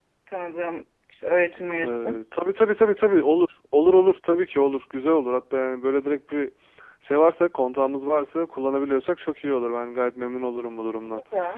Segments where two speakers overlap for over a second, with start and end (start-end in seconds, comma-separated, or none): none